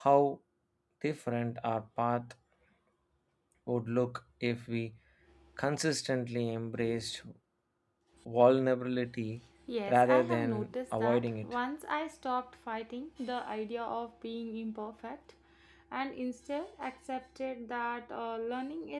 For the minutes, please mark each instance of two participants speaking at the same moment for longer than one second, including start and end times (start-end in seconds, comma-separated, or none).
9.9-11.6